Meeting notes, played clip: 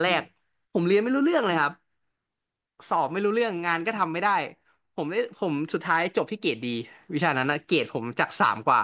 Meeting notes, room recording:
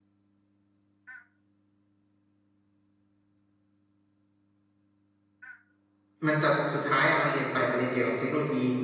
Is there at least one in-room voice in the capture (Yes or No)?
Yes